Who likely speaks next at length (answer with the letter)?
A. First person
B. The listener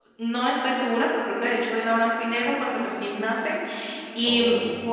A